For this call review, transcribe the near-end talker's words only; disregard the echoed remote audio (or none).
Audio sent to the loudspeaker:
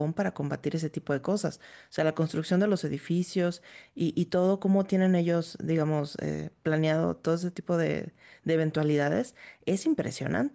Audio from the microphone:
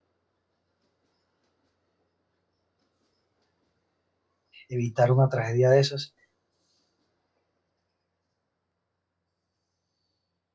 evitar una tragedia de esas.